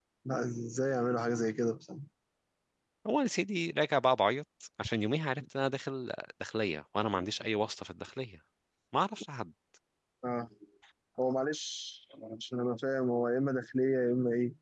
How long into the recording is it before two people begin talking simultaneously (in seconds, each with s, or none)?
none